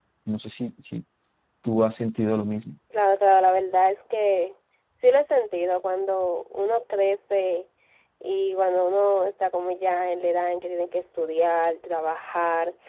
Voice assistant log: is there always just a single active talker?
Yes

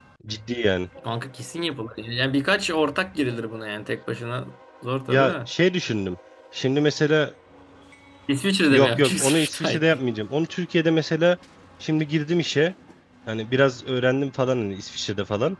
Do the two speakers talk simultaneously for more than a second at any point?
Yes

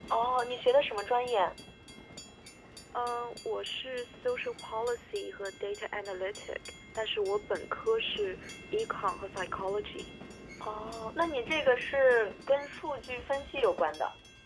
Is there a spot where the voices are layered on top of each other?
No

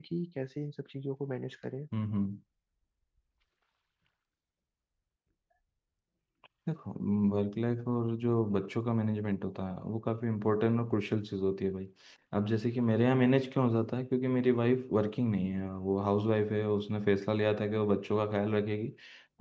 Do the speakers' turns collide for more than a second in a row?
No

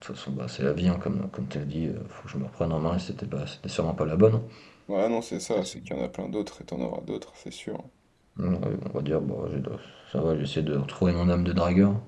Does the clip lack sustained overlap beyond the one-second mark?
Yes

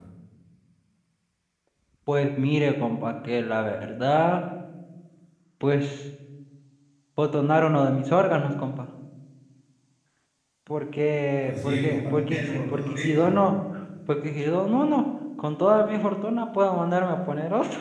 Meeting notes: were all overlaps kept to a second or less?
No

